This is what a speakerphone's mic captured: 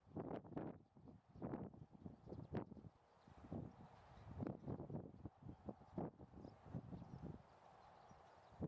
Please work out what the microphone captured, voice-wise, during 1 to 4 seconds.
neither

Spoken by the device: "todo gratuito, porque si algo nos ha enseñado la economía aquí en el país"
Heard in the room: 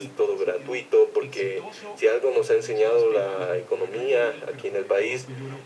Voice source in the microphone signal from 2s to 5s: both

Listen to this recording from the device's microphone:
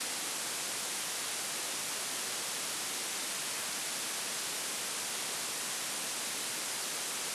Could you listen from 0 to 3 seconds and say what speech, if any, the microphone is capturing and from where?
neither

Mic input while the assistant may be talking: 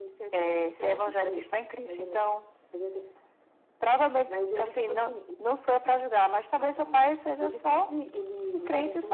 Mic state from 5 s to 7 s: echo only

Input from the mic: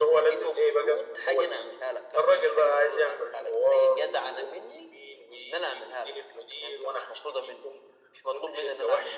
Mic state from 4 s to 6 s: echo only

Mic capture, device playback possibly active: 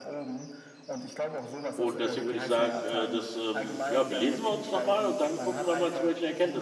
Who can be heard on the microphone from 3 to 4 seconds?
both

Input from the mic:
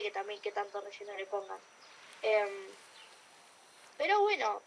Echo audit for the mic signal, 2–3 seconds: echo only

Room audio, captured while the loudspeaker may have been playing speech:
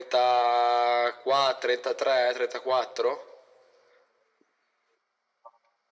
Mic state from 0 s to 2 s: echo only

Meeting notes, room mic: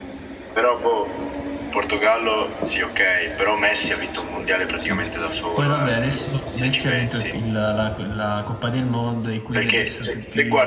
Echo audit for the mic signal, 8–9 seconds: user only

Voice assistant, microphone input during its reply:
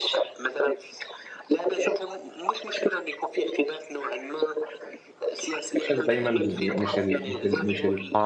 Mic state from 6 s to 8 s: both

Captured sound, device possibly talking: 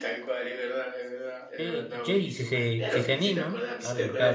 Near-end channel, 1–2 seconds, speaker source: both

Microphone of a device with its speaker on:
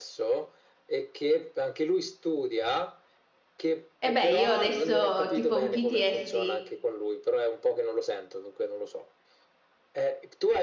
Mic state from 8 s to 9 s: echo only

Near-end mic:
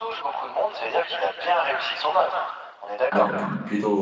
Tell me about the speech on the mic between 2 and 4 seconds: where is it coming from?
both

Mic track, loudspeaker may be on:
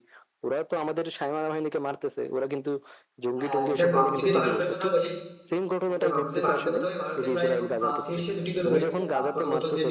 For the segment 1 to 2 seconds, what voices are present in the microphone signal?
echo only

